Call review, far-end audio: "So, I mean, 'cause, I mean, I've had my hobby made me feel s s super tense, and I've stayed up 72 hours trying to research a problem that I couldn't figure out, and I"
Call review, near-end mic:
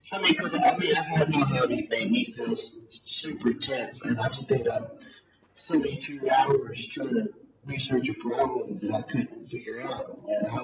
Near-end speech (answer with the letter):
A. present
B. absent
B